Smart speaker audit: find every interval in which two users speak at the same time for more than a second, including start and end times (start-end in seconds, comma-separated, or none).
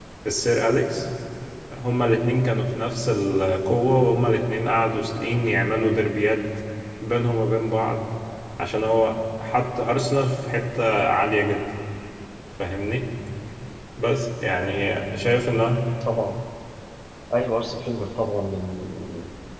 none